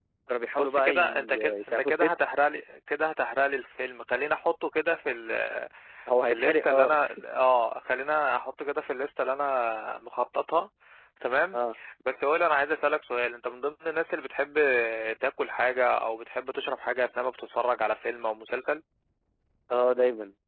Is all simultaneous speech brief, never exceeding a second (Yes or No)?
No